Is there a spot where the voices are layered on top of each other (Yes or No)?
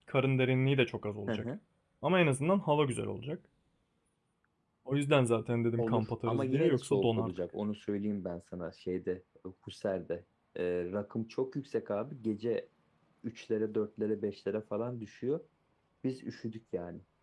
Yes